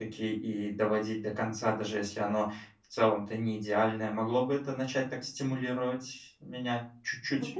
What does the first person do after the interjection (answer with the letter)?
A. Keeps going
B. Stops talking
B